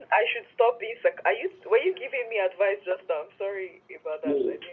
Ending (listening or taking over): taking over